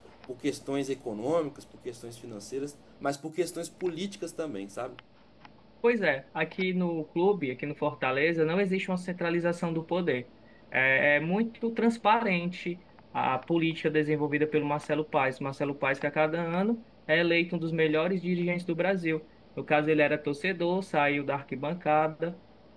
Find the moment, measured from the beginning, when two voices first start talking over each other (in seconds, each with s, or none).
none